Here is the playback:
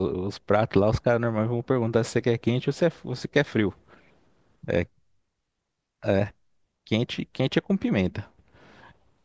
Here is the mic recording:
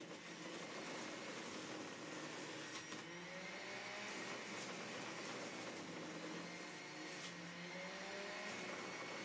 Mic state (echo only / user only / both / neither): neither